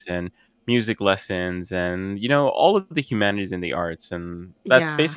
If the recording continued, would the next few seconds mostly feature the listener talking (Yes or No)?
No